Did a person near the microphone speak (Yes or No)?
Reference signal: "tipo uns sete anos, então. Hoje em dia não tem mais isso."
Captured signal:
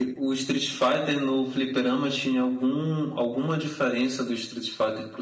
Yes